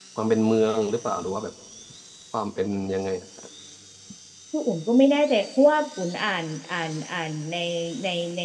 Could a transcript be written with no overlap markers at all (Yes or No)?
Yes